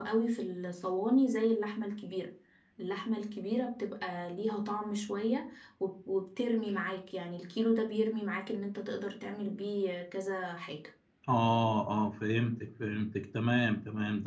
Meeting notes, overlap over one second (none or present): none